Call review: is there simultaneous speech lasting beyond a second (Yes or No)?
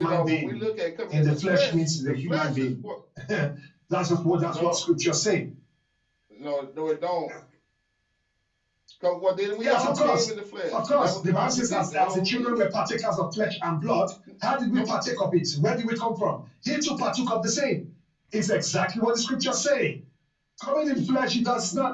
Yes